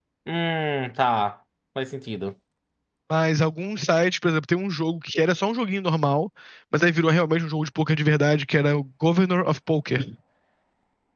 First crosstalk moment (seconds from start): none

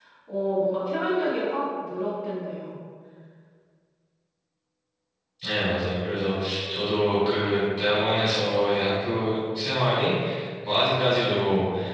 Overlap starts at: none

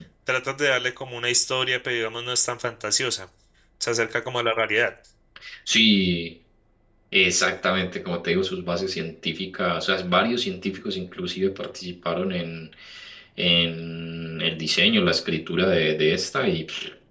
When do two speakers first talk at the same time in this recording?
none

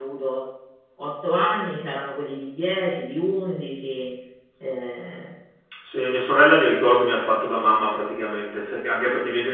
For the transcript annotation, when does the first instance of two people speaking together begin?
none

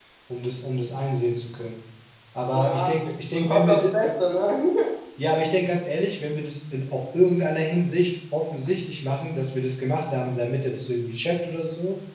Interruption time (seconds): 2.5 s

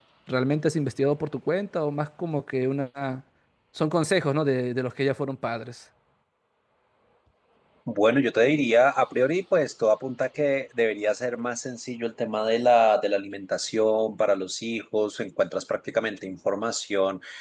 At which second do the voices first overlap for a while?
none

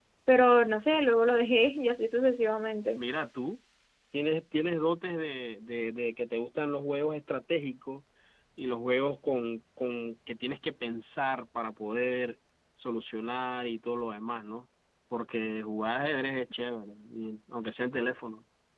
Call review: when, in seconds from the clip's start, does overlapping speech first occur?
none

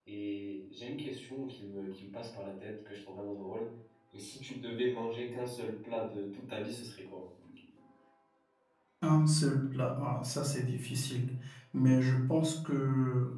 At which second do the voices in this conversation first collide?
none

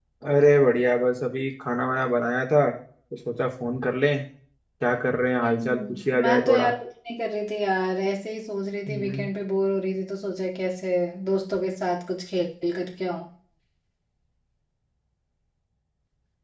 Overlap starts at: 5.4 s

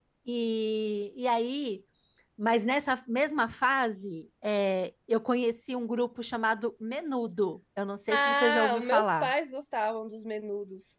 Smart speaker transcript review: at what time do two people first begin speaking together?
8.1 s

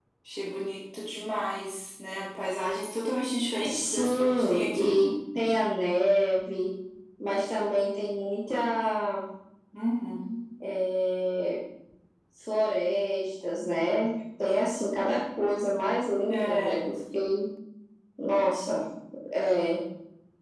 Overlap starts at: 3.7 s

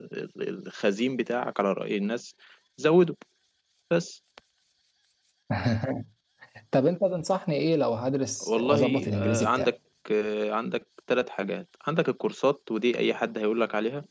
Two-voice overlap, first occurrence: 8.4 s

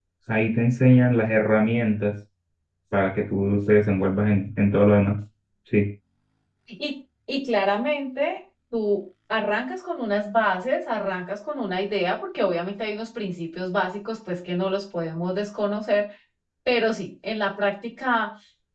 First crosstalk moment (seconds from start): none

